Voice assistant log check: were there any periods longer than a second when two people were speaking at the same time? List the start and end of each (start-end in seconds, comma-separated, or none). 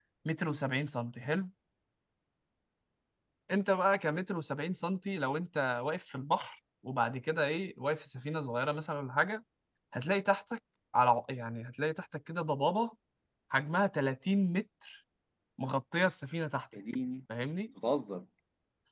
none